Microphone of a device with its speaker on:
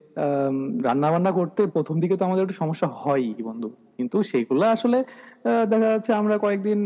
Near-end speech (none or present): none